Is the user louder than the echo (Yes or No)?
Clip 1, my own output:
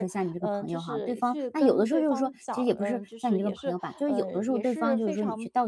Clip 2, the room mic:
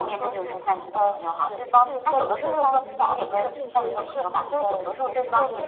No